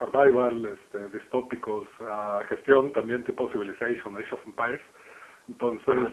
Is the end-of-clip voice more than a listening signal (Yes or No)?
No